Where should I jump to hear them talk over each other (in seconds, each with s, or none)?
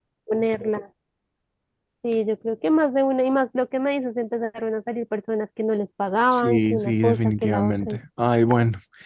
6.3 s